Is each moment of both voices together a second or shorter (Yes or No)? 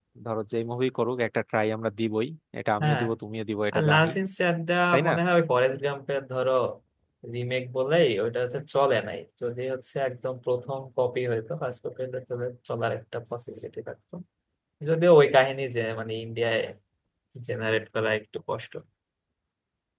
Yes